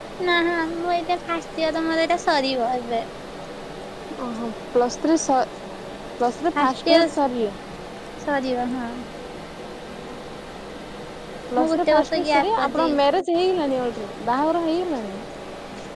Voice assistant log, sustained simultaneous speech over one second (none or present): present